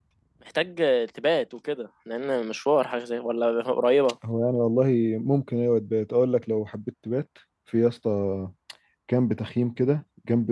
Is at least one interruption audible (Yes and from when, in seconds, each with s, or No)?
No